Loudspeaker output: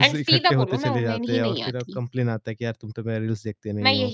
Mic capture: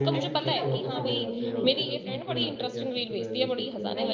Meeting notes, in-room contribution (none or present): present